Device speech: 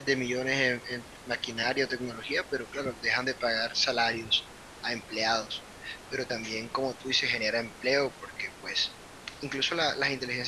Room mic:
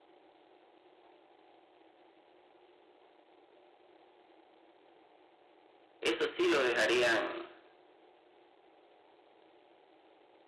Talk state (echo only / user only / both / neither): user only